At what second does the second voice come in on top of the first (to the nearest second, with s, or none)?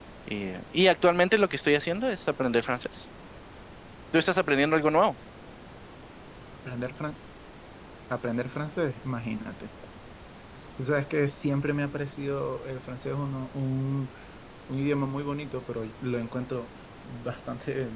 none